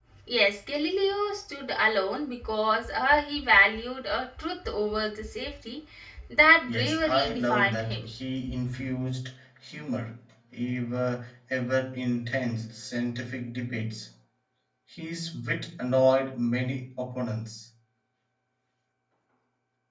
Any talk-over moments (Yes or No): Yes